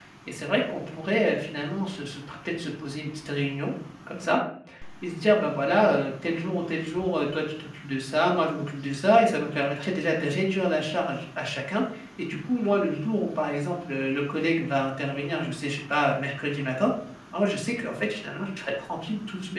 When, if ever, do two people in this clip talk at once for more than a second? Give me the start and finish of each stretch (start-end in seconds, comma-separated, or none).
none